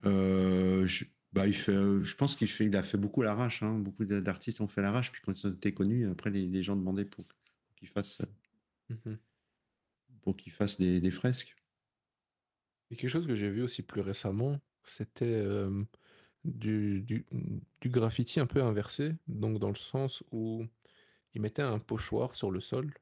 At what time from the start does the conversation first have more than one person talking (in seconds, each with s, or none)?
none